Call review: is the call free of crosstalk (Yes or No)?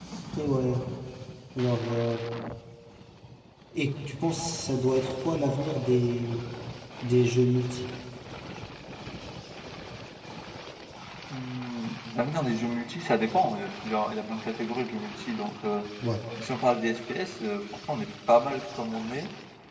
Yes